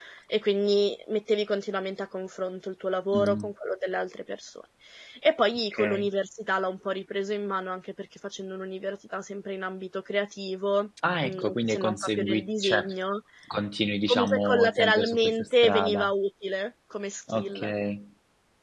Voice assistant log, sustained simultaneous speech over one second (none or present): present